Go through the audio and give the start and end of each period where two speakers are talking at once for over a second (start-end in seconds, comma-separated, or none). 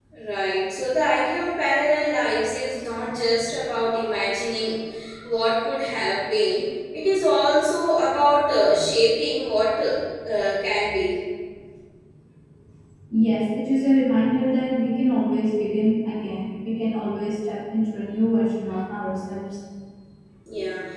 none